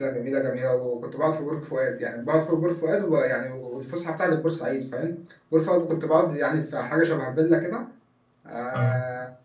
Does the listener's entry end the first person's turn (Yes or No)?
No